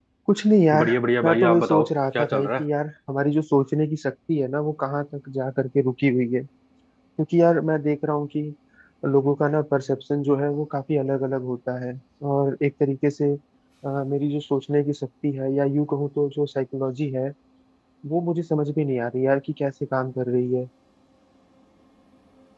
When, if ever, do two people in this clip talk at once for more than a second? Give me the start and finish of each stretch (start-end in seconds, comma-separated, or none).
1.2-2.6